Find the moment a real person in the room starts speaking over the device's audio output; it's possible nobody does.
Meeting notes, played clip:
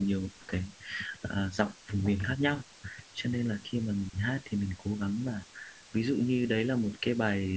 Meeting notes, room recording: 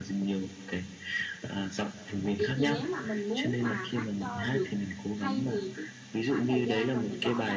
2.4 s

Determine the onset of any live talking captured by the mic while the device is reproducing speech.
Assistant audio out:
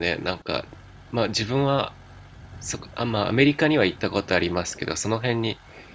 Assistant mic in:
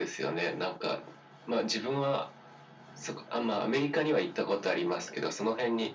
none

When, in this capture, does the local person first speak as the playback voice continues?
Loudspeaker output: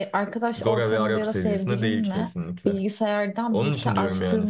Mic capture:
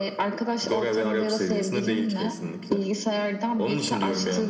none

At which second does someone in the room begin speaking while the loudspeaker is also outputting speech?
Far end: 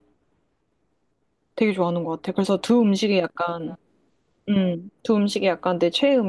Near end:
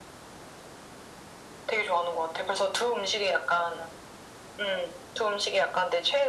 none

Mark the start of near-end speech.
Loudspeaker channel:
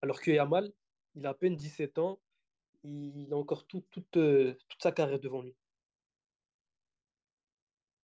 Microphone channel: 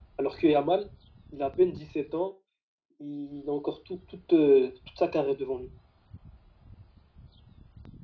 none

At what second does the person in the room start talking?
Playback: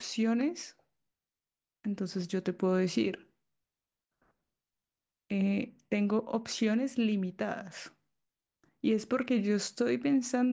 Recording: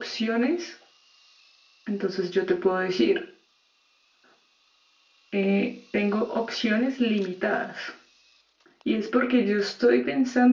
none

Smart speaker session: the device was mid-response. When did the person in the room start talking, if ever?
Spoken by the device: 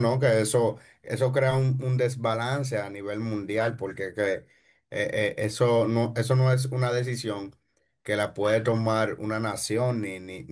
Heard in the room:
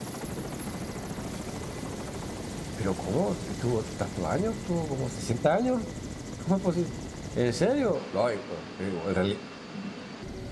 2.7 s

